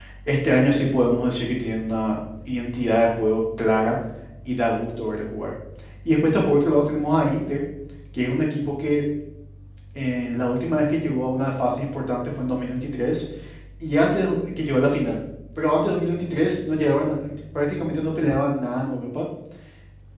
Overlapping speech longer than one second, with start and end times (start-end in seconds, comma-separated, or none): none